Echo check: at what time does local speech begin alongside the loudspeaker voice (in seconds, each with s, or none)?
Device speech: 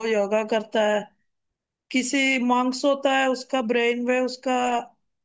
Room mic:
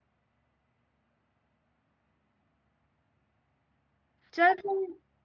4.3 s